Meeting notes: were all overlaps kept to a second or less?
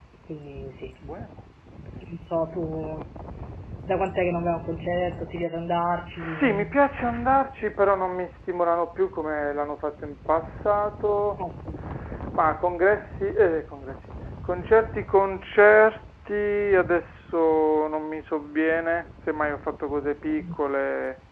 Yes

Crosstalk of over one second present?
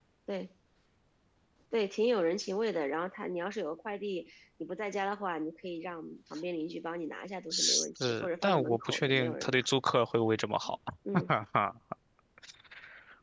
Yes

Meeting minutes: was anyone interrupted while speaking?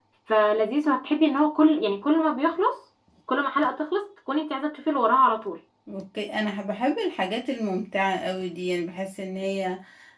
No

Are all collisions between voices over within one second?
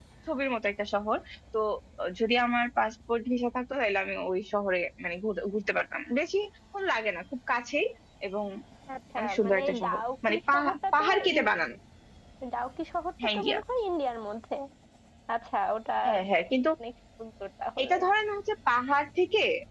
No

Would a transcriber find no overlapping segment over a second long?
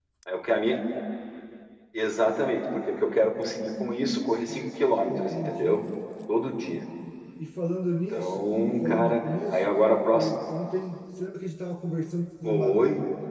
No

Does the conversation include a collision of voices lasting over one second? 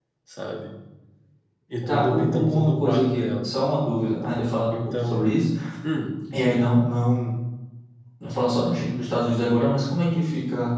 Yes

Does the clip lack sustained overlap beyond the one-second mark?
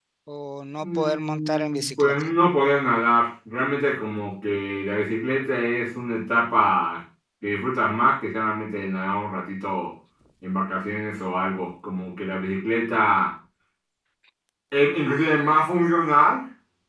No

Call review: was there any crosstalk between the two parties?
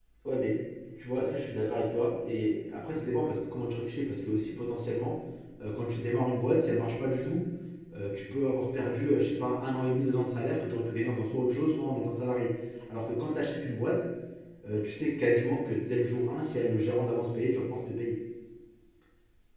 No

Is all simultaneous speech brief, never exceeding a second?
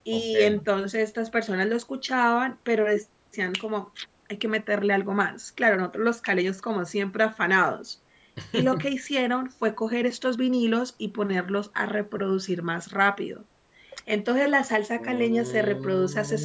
No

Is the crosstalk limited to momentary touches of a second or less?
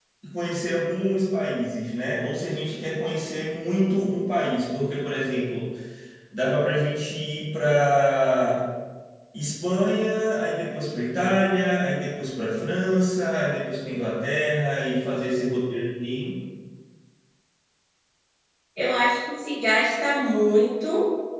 Yes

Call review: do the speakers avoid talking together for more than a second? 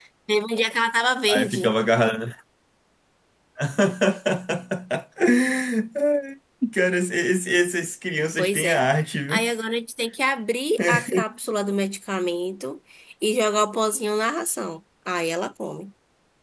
Yes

